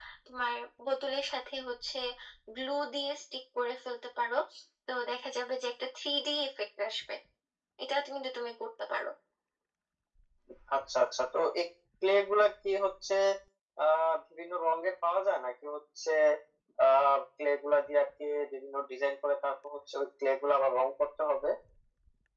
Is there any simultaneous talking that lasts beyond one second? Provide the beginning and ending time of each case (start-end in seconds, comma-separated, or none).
none